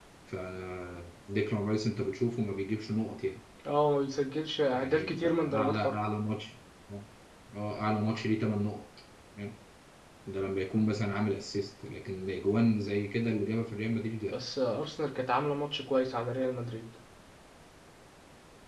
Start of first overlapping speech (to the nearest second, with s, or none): 5 s